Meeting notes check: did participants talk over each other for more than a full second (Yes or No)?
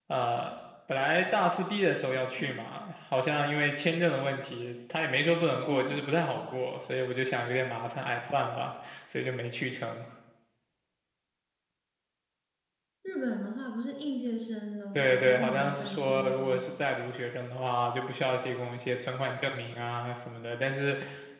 Yes